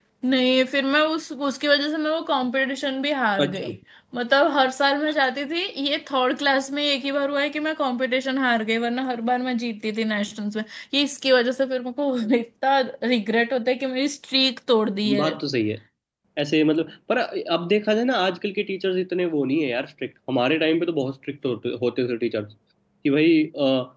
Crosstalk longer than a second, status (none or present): none